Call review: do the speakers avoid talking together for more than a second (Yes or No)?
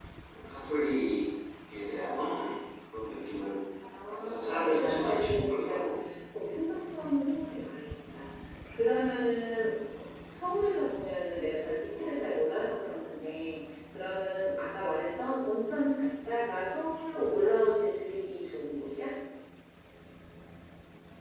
No